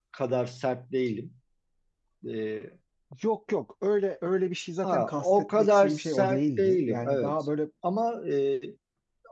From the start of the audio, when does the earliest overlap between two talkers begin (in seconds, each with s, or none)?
4.8 s